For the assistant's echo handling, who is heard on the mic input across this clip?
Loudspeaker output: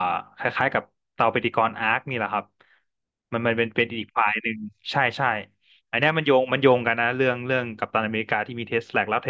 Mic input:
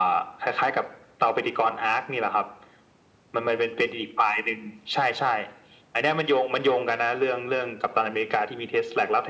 echo only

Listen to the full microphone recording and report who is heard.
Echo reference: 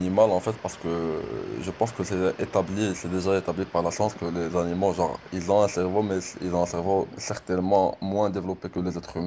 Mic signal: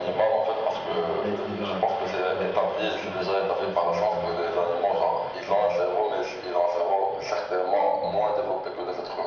both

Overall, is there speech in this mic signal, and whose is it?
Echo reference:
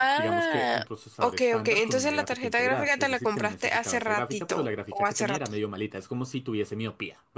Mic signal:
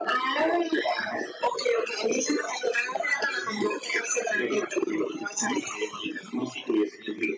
echo only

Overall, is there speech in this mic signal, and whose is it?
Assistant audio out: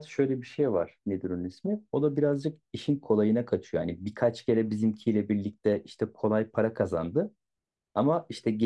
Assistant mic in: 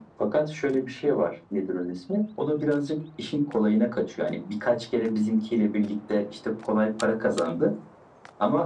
echo only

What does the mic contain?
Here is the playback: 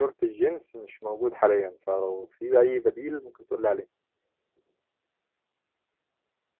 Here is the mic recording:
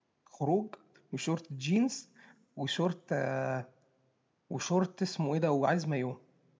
user only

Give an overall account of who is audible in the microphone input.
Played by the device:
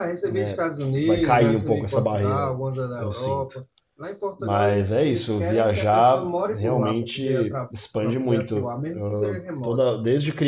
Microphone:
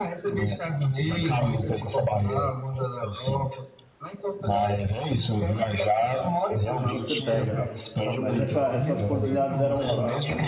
both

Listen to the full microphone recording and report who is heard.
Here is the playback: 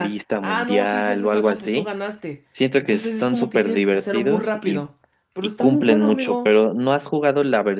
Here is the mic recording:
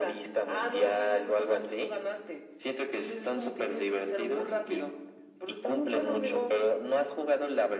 echo only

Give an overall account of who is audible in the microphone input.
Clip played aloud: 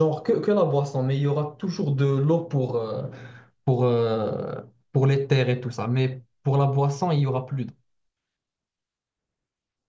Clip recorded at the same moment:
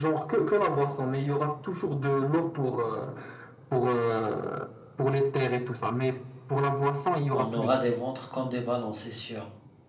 both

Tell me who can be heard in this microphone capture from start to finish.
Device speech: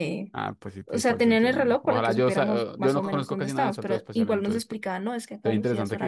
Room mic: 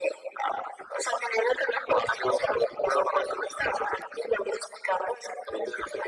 echo only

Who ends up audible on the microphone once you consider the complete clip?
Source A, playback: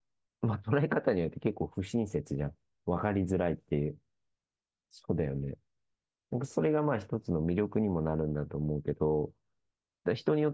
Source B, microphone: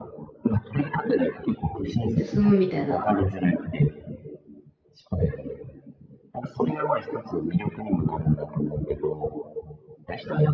both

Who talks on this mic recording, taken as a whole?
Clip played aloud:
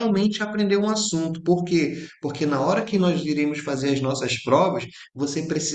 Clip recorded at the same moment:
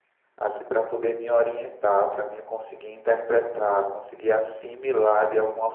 user only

